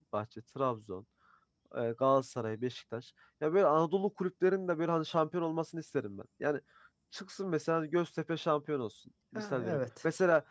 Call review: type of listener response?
listening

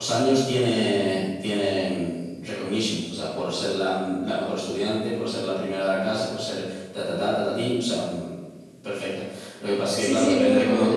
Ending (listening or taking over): taking over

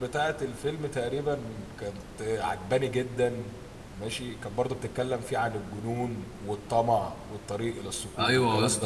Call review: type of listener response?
taking over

